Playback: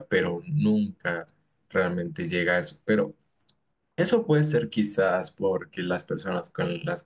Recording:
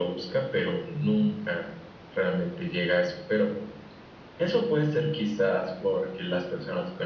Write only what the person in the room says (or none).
none